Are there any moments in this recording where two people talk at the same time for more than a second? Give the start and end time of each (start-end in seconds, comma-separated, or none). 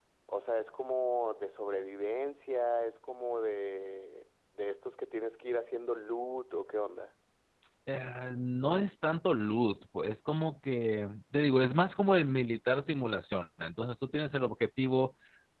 none